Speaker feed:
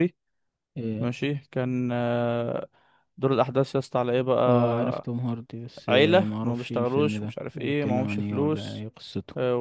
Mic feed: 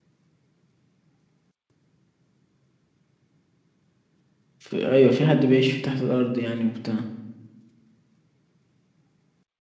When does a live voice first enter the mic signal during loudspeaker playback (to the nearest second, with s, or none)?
5 s